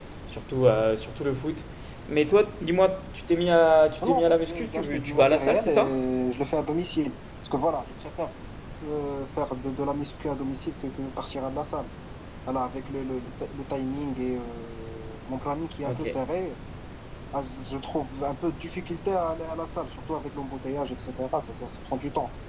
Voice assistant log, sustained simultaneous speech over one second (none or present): present